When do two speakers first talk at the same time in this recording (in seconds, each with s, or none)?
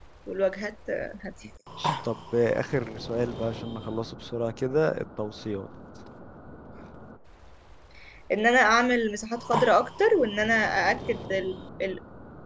none